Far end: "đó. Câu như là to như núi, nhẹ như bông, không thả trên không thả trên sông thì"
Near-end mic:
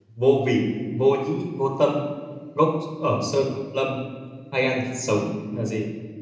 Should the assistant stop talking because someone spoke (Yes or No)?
Yes